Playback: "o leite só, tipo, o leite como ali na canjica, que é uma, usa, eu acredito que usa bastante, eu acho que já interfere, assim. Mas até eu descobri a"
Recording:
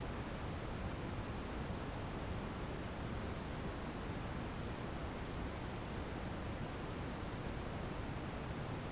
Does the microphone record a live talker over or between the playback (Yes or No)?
No